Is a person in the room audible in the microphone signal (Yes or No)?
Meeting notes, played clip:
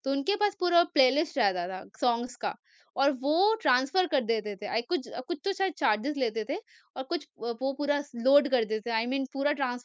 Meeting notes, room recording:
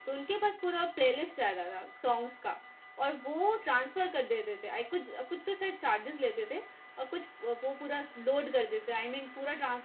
No